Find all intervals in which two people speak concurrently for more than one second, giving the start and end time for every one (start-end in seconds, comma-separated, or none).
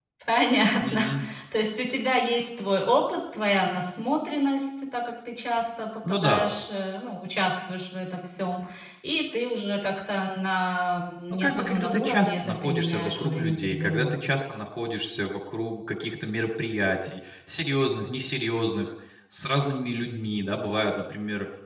11.3-14.2